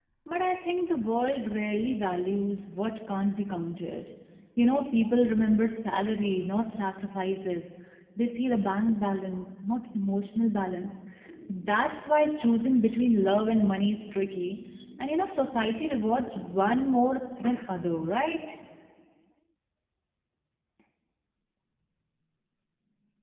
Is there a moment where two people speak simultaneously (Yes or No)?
No